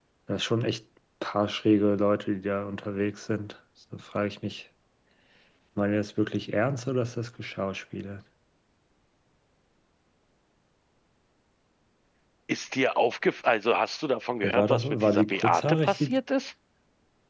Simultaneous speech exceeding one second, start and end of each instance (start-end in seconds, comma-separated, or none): 14.4-16.1